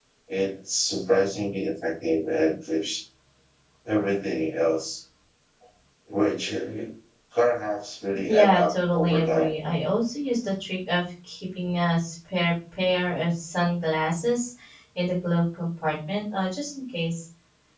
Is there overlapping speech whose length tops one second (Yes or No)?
Yes